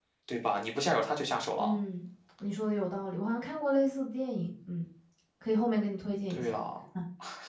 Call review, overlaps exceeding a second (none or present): none